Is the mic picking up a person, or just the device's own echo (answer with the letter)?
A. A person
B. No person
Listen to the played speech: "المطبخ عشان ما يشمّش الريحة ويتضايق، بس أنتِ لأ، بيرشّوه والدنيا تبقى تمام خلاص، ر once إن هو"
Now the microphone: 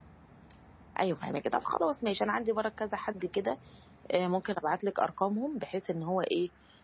A